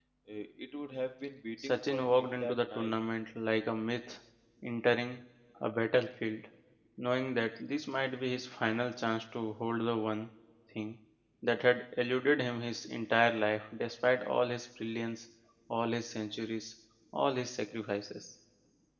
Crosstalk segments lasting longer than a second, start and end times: 1.6-2.9

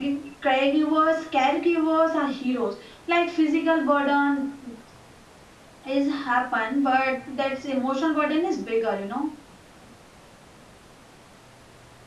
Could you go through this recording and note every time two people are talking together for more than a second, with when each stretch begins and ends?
none

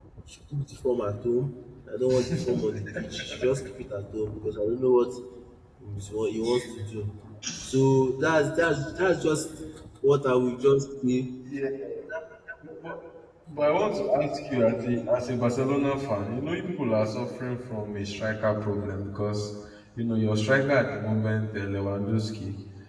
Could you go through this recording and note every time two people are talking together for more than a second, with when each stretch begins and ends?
none

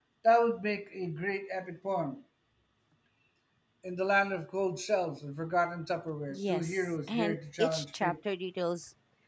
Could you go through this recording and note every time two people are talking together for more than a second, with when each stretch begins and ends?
6.3-8.2

